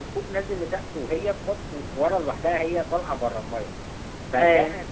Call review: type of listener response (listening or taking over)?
listening